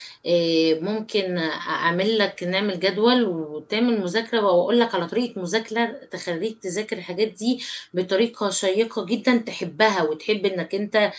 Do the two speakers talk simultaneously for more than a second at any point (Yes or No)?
No